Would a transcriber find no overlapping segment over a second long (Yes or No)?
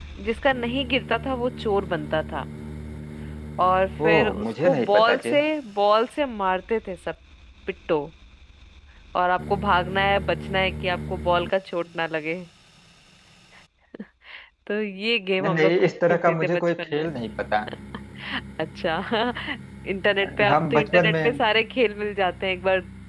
No